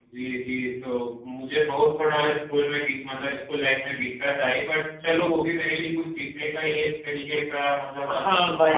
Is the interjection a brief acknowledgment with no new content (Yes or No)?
No